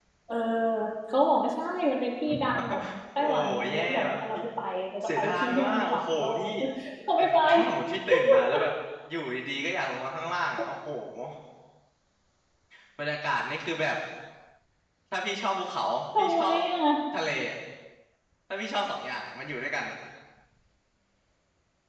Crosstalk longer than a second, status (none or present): present